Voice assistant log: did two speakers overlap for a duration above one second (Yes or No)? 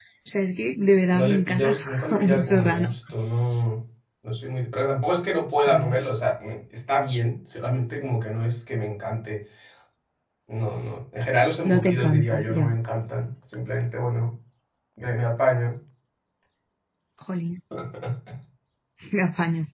Yes